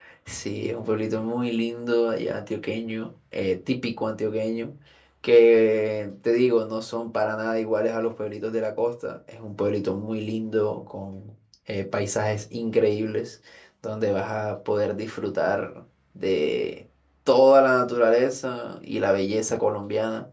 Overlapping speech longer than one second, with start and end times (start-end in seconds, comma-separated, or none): none